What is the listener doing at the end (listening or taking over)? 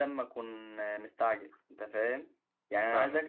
listening